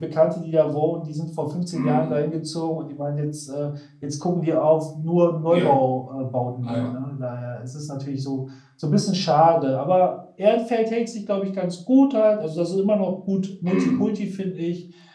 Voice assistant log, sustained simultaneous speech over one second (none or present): none